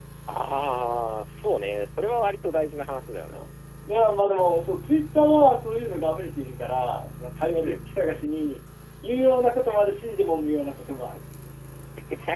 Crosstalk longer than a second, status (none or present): none